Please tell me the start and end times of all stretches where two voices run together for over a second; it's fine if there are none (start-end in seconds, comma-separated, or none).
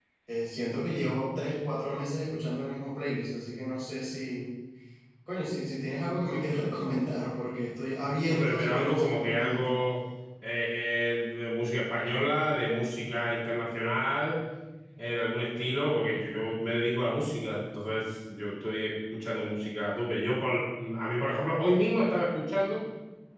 8.3-9.7